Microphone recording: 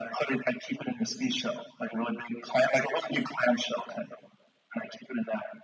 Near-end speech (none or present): none